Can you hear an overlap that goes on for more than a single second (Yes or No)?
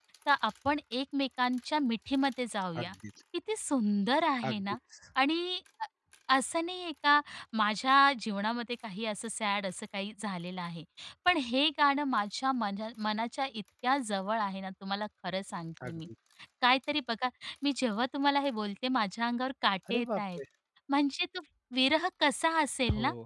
No